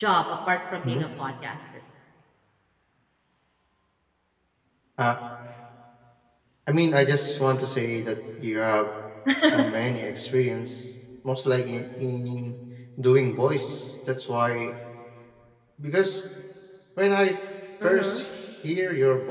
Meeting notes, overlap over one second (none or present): none